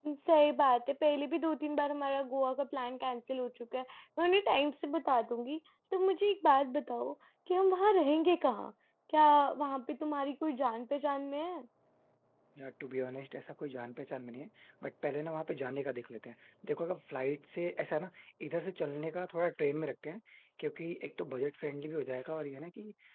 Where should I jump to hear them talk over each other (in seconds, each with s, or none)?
none